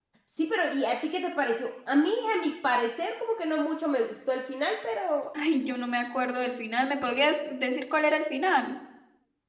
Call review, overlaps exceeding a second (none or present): none